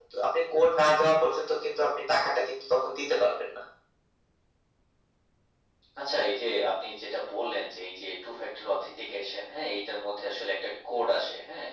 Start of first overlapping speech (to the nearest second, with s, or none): none